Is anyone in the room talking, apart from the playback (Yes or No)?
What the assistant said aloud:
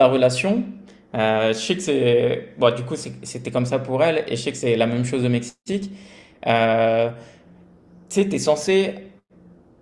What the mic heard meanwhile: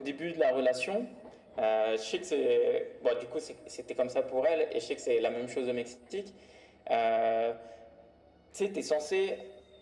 No